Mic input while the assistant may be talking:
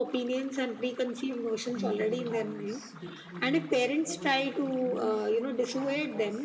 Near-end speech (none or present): present